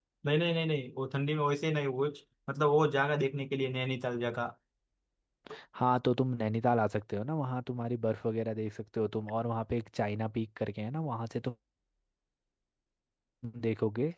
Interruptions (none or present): none